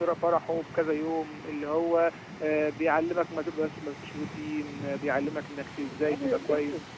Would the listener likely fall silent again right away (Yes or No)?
No